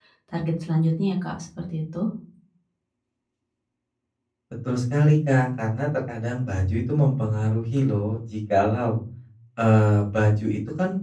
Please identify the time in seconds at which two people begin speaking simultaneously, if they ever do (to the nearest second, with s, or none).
none